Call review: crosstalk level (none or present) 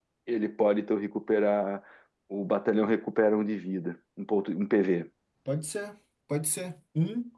none